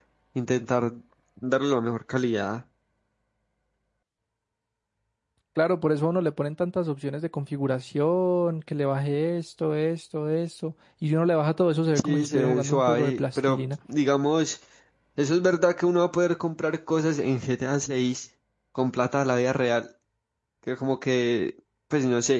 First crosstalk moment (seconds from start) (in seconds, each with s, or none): 11.9 s